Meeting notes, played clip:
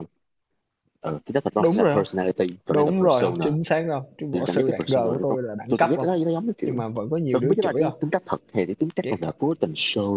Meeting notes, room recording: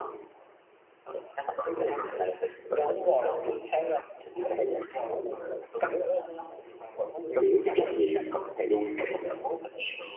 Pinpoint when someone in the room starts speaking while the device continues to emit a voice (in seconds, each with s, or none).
7.4 s